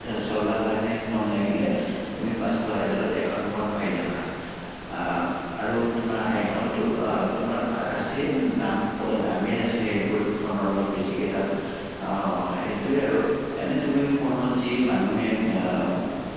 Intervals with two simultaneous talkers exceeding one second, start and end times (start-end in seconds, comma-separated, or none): none